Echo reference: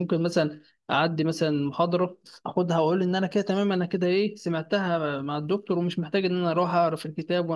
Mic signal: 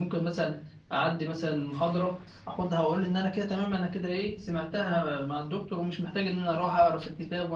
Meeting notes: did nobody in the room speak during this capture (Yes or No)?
Yes